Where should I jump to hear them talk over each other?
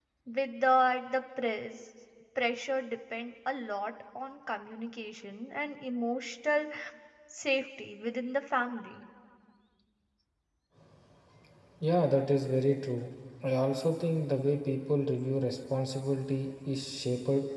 none

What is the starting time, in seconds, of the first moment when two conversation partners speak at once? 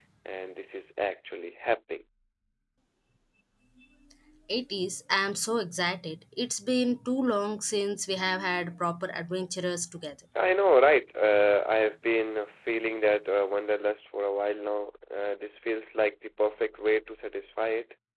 none

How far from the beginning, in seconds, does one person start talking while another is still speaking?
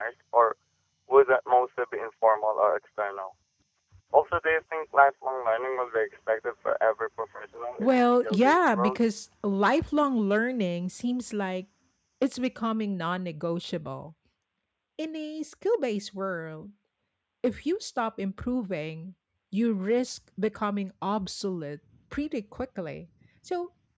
8 s

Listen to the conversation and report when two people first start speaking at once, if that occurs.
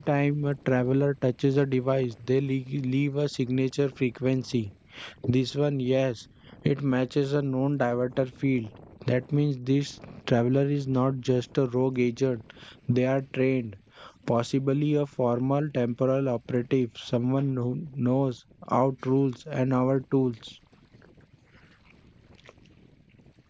none

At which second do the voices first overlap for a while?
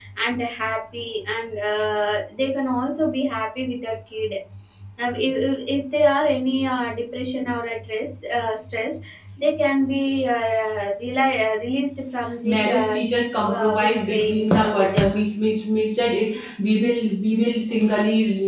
12 s

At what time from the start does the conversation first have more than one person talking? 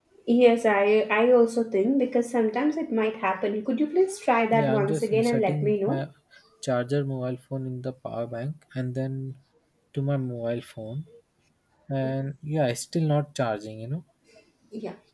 5 s

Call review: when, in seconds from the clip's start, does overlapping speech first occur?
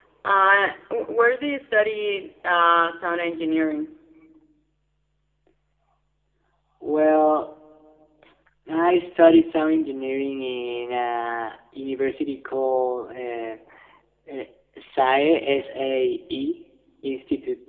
none

